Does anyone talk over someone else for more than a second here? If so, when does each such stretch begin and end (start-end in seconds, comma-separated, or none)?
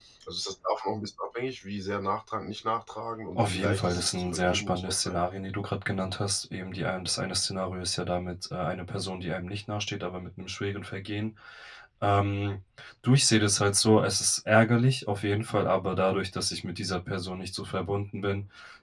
3.4-5.2